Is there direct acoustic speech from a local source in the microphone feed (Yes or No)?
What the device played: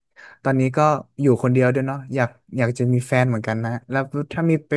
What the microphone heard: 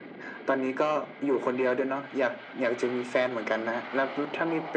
No